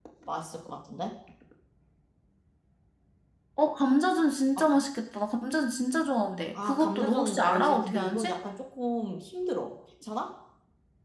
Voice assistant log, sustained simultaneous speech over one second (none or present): present